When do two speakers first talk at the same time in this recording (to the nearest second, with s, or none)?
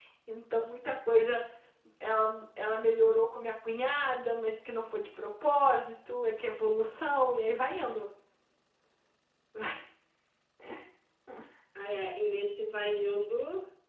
none